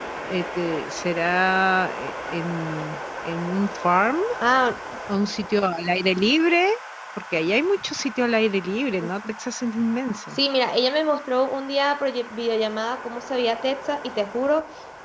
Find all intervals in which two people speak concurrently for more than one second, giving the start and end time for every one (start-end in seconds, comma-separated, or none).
none